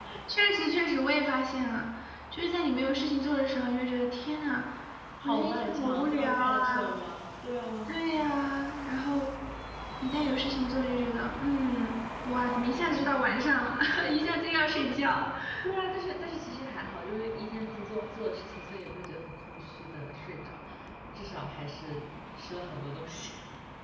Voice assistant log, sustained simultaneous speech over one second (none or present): present